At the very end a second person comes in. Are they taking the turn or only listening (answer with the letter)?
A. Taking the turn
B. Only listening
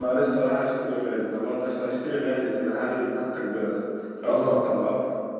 A